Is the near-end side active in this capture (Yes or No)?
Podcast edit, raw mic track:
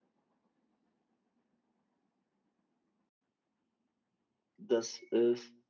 Yes